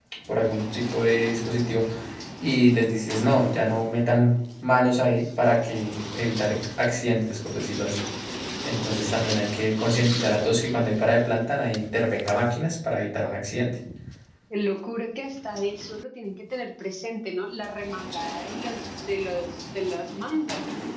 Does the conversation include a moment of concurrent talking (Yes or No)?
No